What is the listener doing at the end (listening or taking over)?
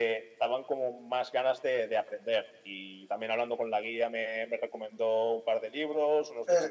taking over